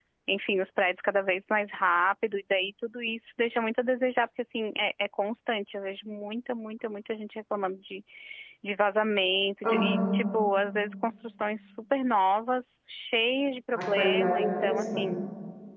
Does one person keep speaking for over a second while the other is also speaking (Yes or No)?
Yes